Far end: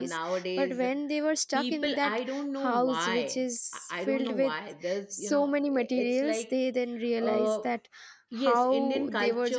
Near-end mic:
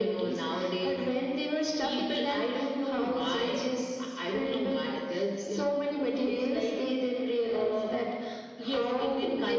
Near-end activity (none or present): none